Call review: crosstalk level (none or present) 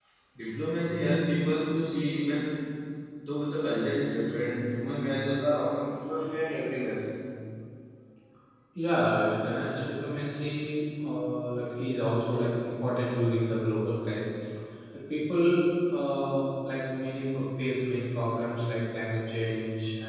none